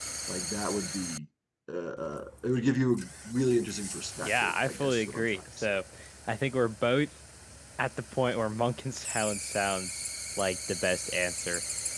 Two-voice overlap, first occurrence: 4.2 s

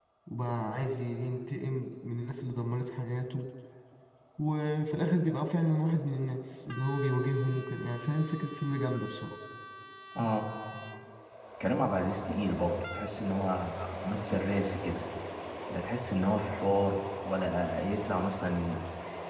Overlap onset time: none

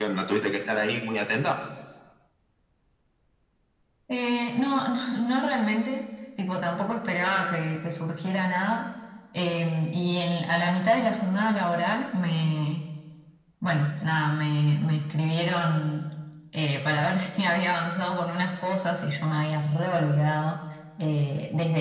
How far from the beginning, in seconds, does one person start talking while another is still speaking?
none

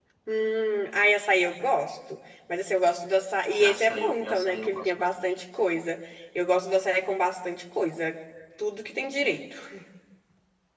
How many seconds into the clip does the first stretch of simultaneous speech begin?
3.6 s

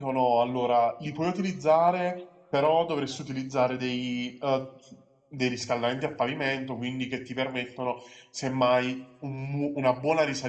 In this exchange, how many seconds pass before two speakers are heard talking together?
none

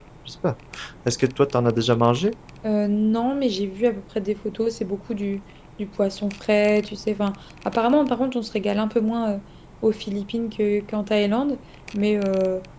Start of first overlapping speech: none

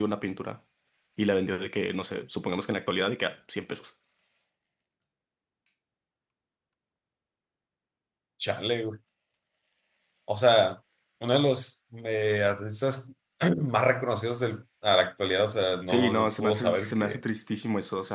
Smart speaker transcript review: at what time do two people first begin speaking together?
15.9 s

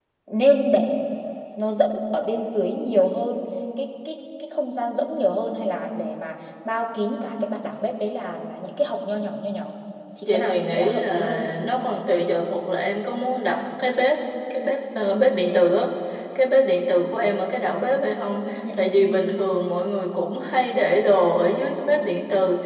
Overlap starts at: 10.2 s

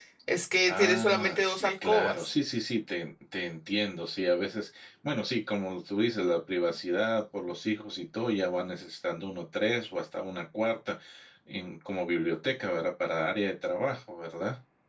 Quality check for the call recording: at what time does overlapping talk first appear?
0.7 s

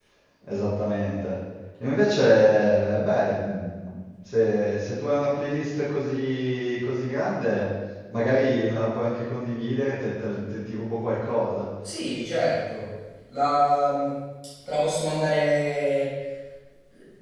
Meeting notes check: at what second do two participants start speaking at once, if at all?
none

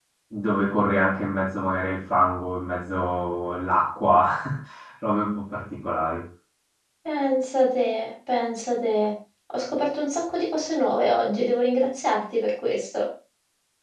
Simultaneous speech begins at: none

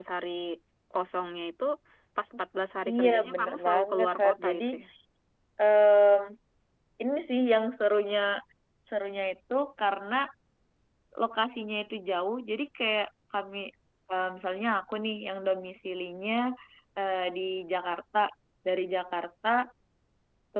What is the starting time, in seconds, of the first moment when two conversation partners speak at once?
2.9 s

